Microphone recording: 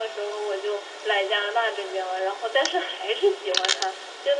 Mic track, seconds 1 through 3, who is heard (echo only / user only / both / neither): echo only